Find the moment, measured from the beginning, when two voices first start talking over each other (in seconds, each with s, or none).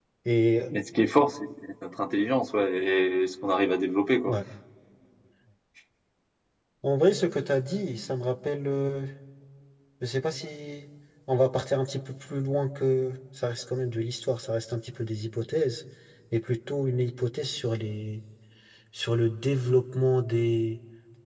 none